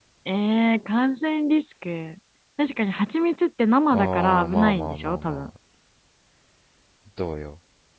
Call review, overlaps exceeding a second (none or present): present